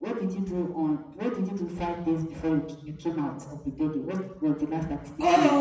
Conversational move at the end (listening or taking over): taking over